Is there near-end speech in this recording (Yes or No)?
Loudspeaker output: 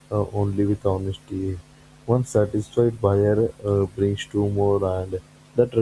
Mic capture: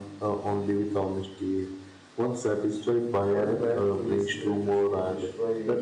Yes